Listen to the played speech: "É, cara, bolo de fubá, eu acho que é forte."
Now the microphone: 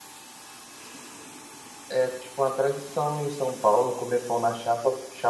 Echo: none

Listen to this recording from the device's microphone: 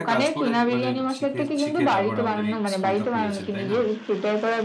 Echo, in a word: present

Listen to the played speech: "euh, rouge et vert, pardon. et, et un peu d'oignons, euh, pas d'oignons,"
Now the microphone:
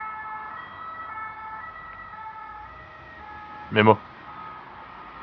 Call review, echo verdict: none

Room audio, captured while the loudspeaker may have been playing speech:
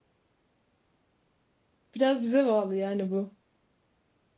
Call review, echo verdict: none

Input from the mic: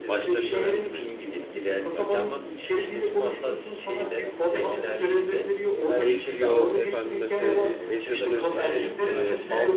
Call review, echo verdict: present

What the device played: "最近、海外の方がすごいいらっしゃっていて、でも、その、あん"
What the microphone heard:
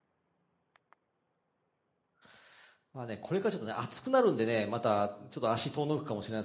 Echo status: none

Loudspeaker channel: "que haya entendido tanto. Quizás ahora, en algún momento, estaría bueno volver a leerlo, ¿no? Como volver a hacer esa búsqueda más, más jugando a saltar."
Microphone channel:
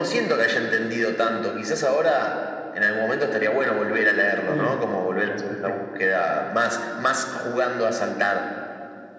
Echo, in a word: present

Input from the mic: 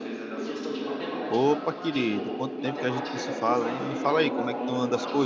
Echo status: present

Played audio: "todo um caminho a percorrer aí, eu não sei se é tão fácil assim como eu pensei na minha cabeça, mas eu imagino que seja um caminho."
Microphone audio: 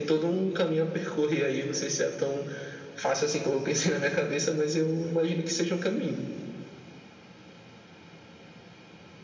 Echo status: present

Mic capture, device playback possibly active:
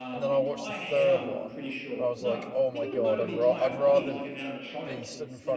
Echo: present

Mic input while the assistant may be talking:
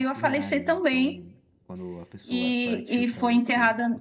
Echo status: present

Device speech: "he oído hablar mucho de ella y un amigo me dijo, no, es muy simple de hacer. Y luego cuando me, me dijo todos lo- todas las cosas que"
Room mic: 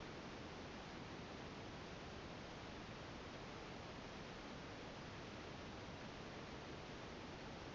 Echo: none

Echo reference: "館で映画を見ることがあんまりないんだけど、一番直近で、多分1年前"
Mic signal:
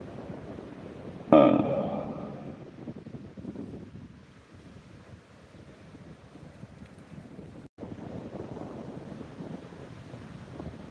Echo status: none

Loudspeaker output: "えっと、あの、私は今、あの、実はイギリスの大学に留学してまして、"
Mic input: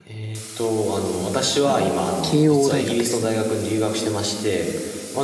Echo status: present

